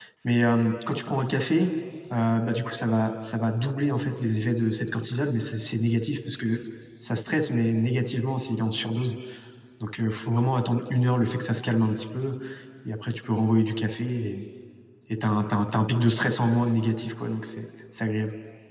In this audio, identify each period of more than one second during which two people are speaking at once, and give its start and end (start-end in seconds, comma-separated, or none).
none